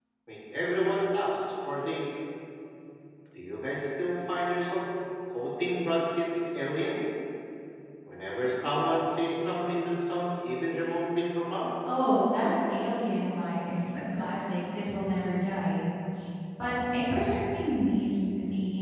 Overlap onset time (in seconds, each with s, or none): none